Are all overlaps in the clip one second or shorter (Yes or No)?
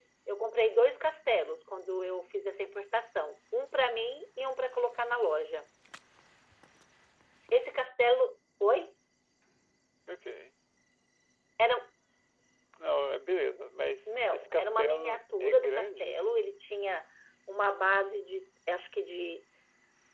No